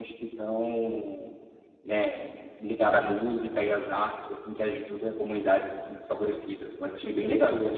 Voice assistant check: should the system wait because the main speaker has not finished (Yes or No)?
No